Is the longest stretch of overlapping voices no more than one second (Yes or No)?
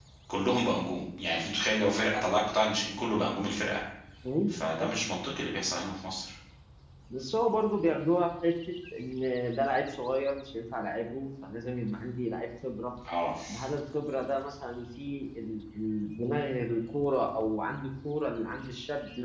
Yes